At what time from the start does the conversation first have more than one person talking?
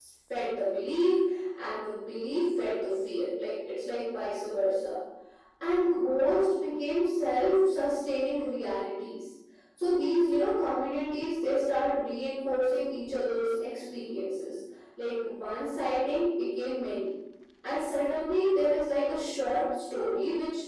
none

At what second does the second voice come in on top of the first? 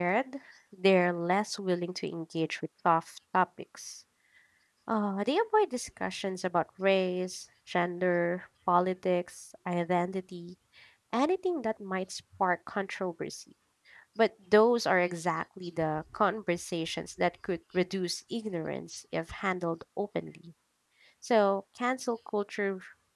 none

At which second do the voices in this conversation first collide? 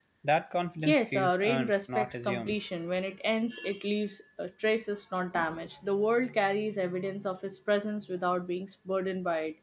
0.8 s

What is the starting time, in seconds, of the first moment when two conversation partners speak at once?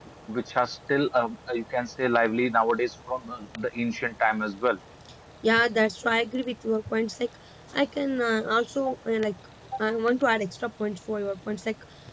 none

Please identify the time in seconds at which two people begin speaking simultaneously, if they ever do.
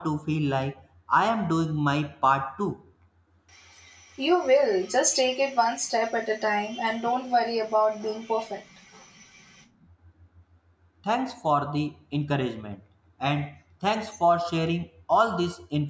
none

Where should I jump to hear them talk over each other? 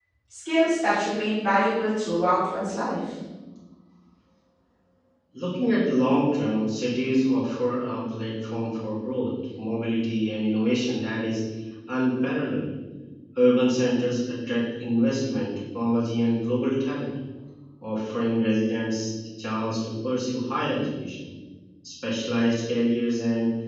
none

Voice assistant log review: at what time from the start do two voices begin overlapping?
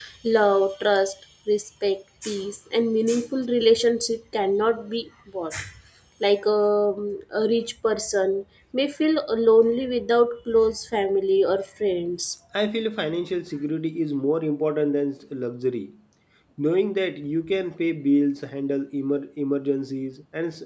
none

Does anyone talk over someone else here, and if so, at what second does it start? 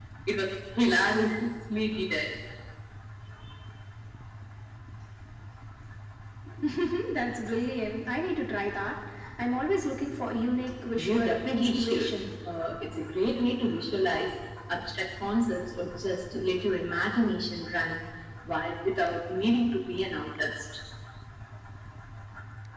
10.9 s

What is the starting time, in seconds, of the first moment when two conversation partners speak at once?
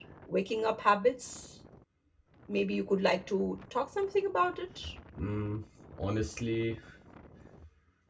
none

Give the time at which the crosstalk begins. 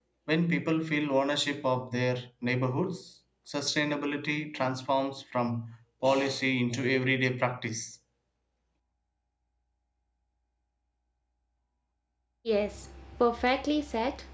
none

